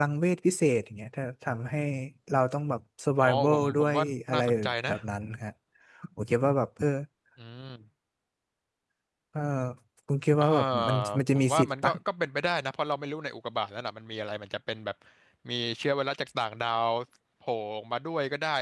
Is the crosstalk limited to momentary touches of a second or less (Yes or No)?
No